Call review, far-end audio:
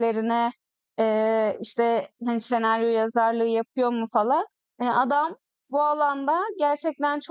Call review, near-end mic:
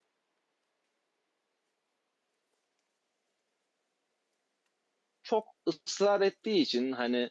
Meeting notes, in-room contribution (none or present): present